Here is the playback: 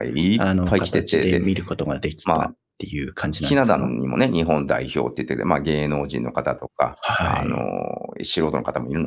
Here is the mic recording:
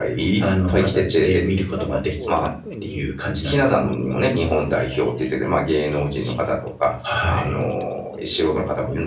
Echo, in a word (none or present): present